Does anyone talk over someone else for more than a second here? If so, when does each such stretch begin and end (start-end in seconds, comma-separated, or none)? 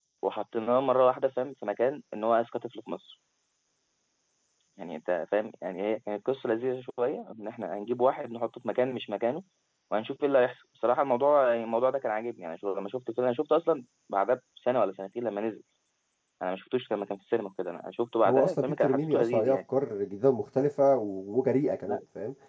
18.3-19.6